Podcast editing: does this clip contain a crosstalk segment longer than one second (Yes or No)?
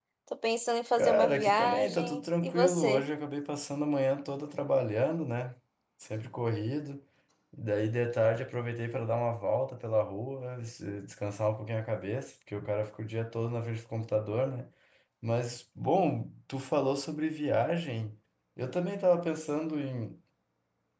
Yes